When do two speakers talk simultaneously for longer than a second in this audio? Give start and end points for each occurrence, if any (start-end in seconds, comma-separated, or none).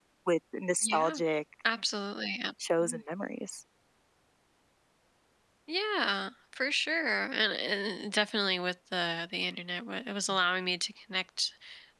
none